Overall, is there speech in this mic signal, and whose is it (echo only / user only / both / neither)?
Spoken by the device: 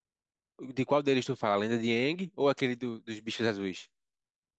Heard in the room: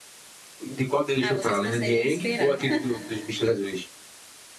both